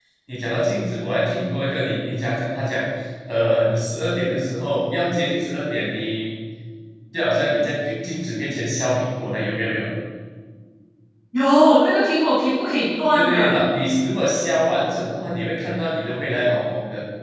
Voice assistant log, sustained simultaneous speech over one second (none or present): none